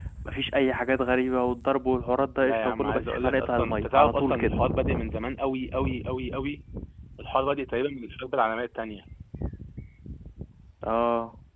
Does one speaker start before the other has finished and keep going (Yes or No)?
Yes